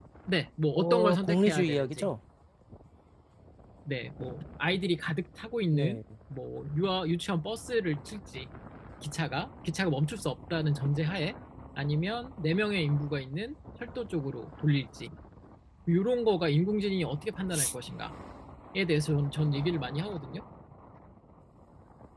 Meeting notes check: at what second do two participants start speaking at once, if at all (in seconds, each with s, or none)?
0.8 s